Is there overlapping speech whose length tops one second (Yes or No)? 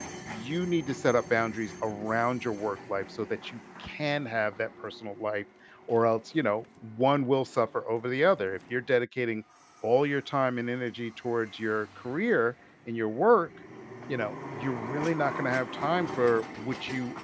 No